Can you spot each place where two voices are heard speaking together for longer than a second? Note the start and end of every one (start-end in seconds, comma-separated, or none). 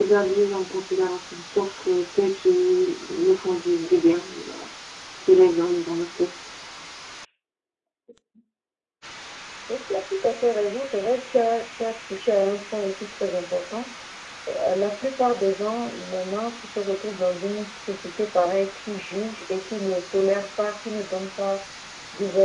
none